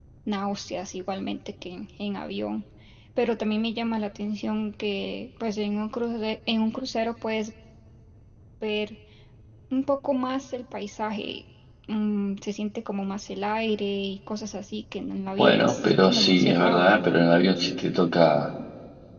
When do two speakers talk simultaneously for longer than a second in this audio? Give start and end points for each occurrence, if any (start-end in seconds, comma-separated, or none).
15.4-16.8